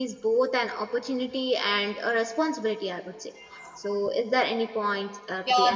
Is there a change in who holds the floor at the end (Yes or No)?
Yes